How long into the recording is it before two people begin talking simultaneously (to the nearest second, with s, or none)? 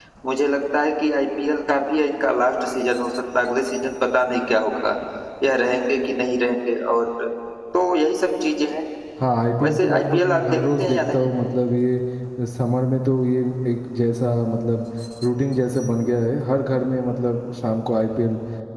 10 s